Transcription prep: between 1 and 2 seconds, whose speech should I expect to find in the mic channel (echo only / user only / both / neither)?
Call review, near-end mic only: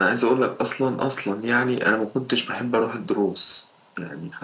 echo only